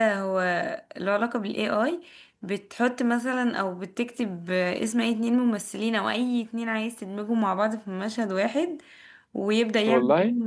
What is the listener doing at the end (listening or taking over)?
listening